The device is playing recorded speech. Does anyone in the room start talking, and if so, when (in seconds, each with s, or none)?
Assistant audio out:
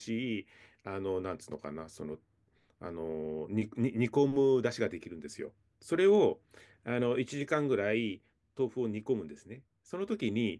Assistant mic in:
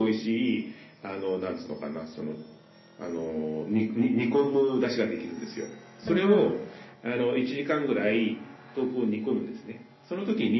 6.0 s